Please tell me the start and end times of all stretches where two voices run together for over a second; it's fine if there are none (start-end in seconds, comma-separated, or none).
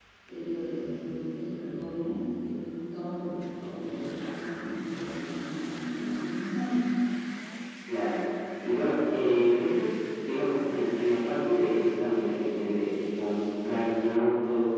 none